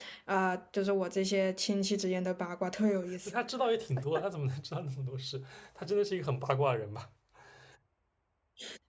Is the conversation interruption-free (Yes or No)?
Yes